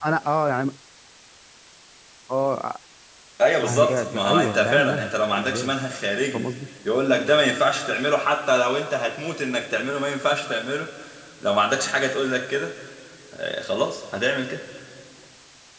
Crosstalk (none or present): present